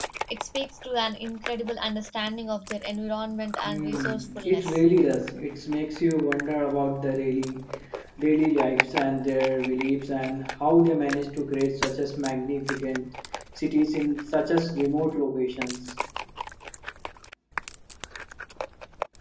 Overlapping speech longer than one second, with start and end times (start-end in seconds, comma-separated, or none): 3.6-4.9